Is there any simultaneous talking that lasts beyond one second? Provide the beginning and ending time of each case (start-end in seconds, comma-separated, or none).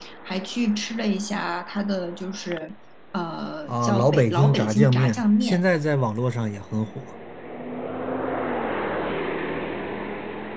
3.7-5.6